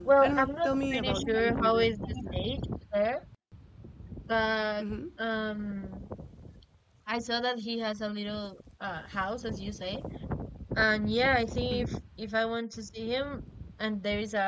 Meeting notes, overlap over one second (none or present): present